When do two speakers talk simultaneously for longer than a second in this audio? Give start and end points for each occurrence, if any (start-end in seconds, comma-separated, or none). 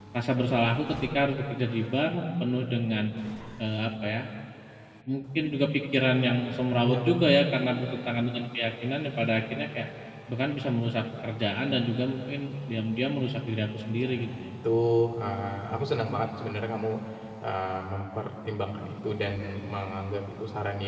none